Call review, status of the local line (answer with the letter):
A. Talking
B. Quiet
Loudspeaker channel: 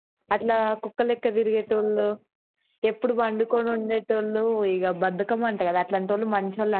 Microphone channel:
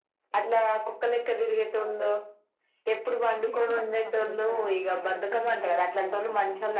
A